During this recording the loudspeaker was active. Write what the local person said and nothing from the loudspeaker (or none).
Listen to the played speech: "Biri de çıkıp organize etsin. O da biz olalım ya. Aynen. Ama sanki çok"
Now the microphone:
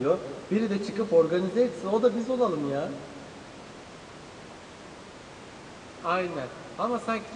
none